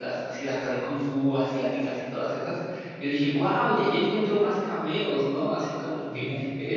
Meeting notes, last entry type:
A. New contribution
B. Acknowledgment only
B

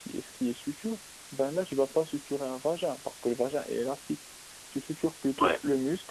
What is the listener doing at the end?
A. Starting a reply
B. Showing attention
B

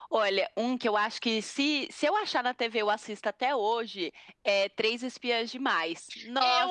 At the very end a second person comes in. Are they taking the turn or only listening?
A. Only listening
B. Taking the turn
B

